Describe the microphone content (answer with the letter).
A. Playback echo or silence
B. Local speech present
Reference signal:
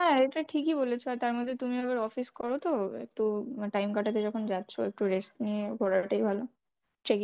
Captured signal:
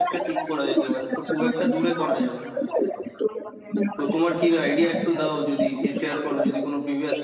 B